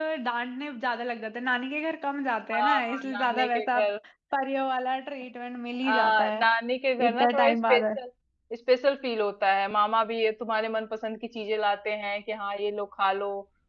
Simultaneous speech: Yes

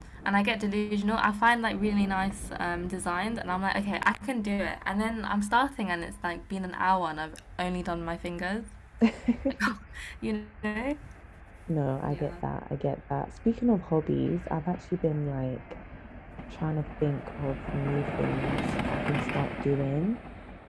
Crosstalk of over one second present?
No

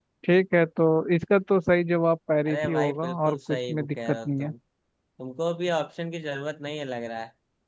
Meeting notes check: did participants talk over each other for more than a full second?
Yes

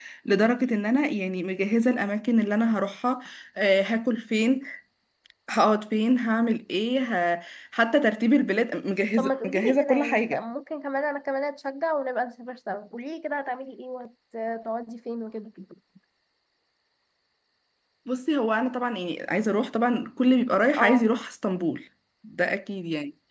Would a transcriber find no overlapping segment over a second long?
No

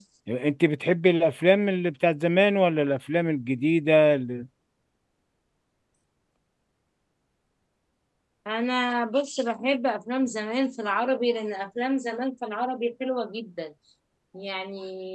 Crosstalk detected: No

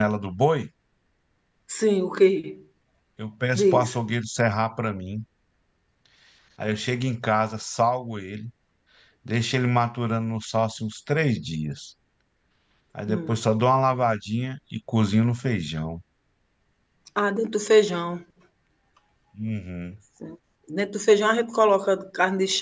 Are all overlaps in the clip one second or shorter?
Yes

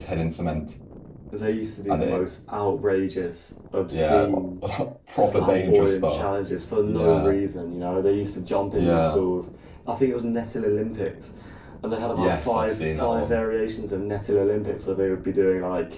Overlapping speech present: Yes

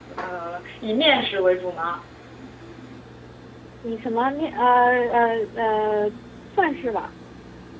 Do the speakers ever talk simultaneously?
No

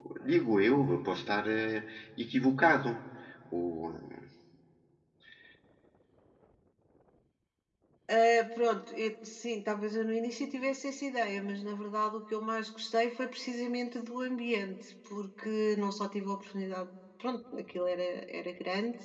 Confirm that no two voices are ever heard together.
Yes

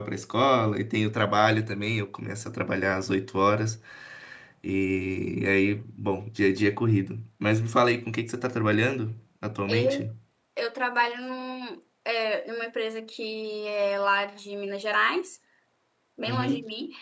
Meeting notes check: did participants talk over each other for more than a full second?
No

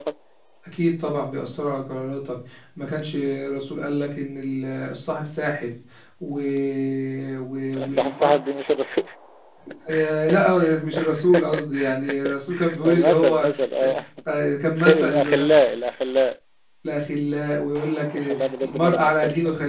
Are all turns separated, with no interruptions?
No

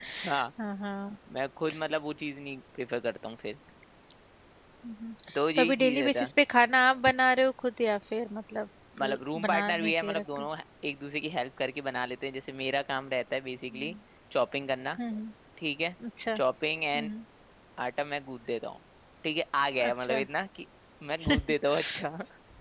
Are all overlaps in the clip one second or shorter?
No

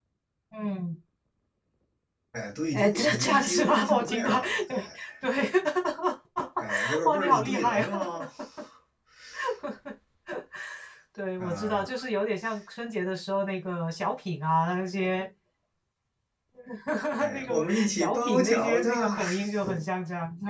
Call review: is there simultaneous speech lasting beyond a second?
Yes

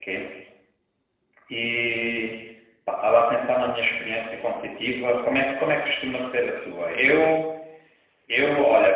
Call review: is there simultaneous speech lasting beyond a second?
No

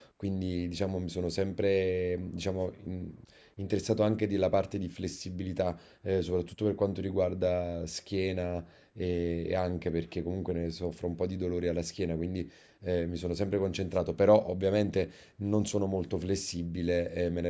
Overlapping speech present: No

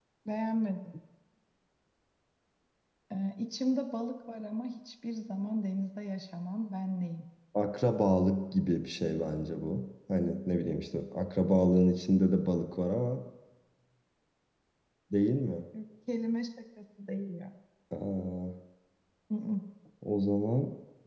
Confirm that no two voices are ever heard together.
Yes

